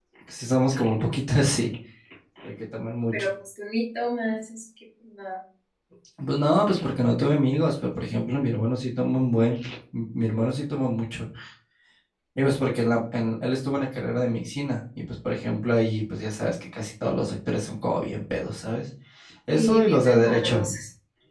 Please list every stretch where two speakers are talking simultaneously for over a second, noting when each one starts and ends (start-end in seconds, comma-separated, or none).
19.5-20.7